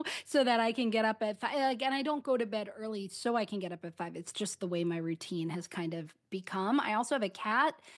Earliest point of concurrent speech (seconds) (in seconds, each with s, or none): none